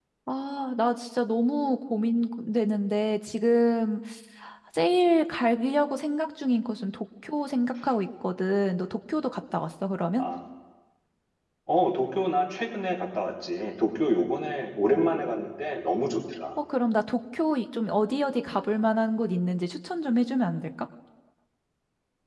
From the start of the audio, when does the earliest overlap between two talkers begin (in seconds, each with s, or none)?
none